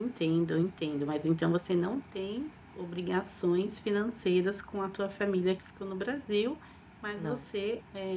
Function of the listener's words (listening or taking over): listening